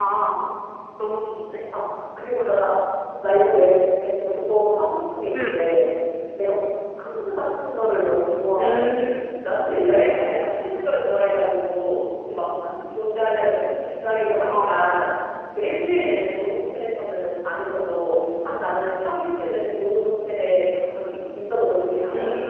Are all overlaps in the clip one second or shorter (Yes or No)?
Yes